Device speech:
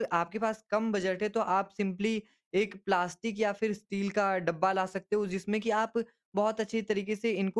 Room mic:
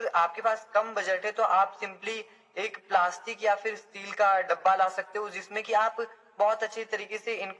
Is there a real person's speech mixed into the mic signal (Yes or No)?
No